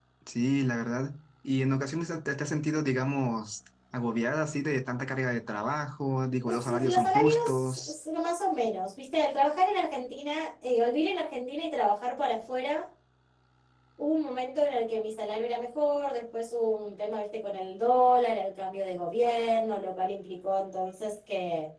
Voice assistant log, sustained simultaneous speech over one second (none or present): present